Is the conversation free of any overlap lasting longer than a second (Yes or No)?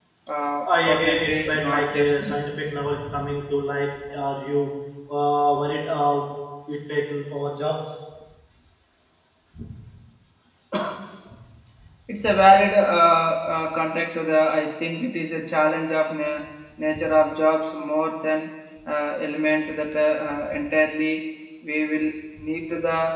No